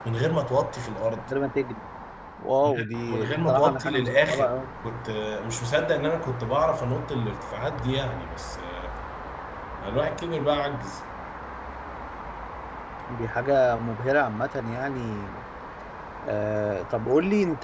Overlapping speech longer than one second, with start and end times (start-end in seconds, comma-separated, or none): 2.6-4.5